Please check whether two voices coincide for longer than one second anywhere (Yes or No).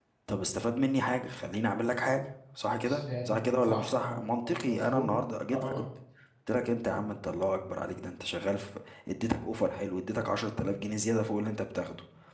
Yes